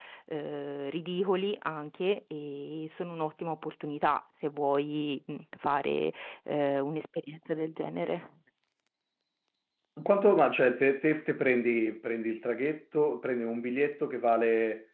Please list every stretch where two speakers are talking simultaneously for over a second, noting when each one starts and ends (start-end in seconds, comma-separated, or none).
none